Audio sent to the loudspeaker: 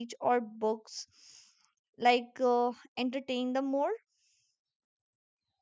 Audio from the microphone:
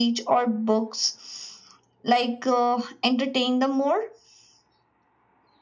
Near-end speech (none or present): none